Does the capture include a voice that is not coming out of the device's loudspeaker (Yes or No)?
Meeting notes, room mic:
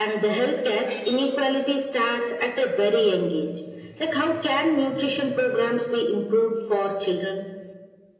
No